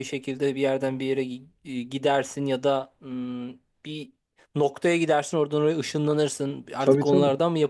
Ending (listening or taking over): listening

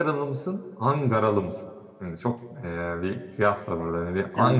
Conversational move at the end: taking over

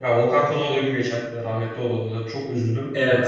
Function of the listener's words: taking over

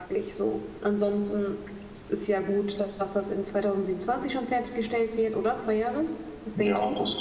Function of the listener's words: taking over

